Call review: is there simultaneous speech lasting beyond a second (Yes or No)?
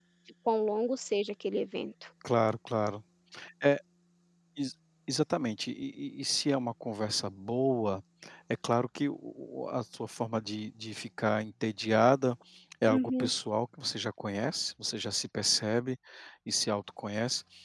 No